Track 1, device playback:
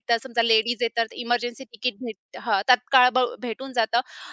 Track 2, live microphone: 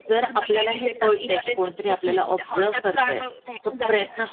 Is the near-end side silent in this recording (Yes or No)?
No